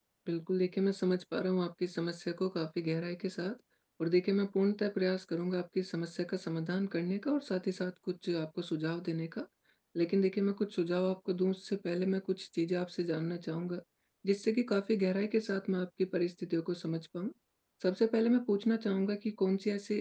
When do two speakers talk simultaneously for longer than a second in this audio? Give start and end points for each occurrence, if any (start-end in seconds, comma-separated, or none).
none